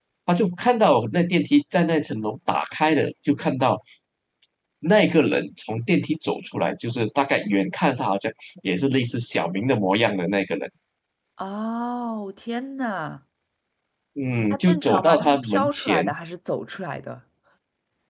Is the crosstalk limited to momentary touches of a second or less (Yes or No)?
No